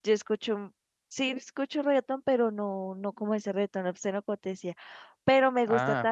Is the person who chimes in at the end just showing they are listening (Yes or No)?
Yes